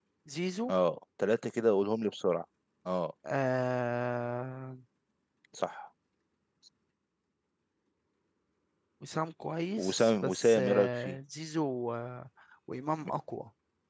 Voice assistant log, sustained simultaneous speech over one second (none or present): present